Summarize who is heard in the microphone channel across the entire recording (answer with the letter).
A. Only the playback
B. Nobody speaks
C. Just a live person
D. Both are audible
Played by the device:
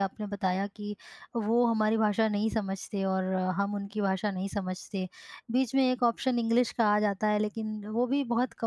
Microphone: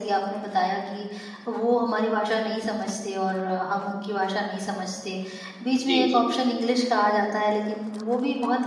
D